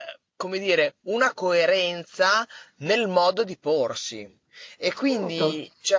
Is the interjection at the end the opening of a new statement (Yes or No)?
No